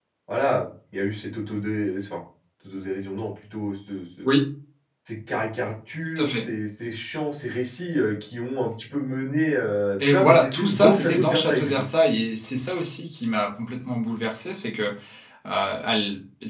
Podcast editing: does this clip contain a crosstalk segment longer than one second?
Yes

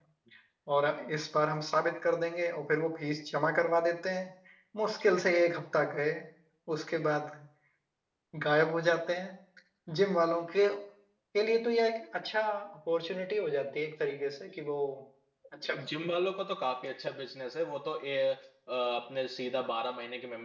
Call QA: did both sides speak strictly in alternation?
Yes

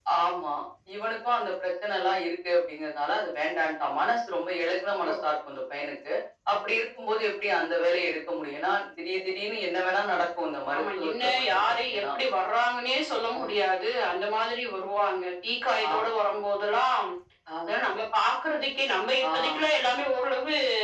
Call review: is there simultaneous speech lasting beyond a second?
Yes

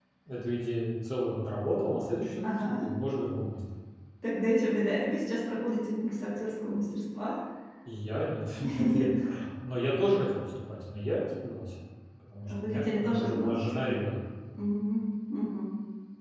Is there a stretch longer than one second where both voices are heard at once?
Yes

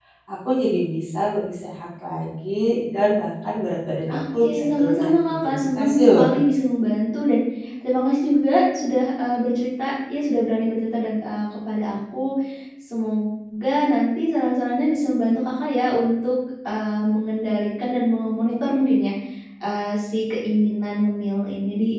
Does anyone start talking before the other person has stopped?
Yes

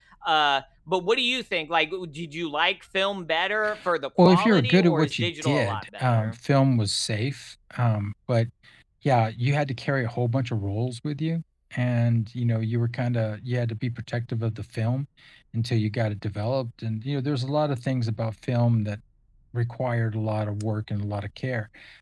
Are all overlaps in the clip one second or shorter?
No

